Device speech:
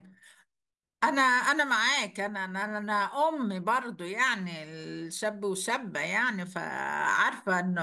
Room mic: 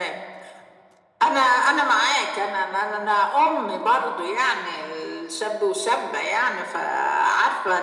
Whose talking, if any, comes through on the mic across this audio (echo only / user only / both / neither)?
echo only